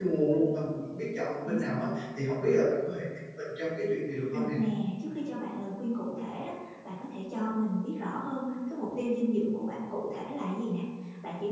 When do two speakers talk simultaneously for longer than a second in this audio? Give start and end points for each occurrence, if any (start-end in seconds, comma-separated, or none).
none